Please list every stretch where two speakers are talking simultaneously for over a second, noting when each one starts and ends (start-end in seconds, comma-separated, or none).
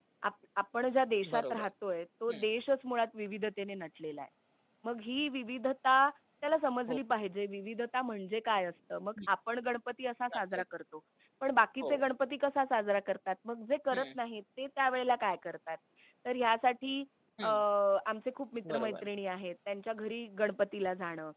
none